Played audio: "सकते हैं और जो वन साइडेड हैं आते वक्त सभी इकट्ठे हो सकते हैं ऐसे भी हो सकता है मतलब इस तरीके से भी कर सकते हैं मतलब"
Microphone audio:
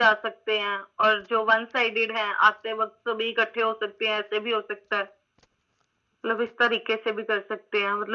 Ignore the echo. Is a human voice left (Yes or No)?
No